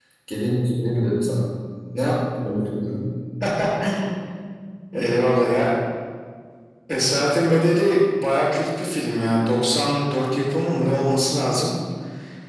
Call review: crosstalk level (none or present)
none